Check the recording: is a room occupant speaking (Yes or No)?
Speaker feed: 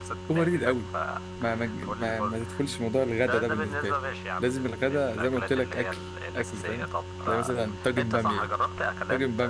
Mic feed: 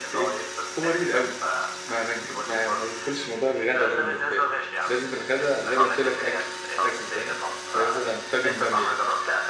Yes